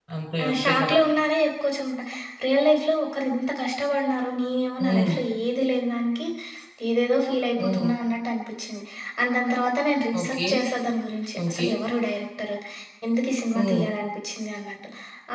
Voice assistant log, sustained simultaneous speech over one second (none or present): none